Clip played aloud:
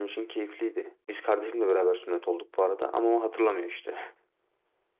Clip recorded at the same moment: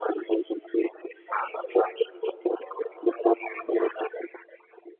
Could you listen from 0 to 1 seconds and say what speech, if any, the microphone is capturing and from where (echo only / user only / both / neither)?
echo only